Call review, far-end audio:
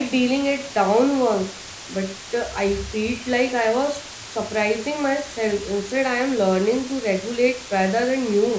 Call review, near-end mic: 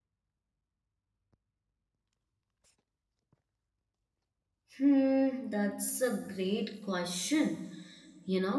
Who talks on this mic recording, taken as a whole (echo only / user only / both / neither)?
user only